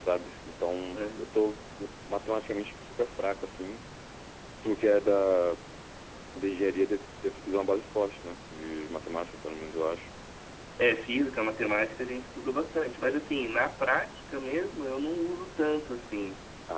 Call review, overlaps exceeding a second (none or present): none